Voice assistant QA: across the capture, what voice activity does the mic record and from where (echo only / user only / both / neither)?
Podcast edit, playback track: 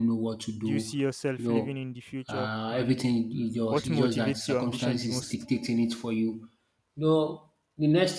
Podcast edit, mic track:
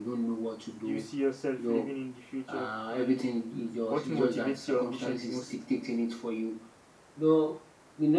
echo only